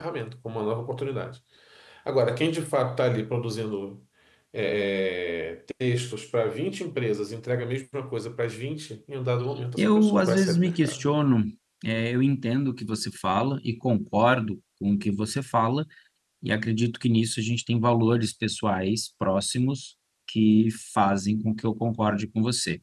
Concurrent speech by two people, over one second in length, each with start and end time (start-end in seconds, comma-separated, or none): 9.8-11.1